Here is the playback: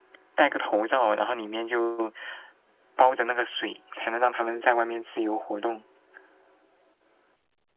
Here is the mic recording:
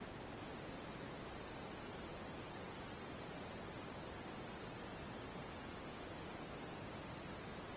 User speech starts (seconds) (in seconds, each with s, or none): none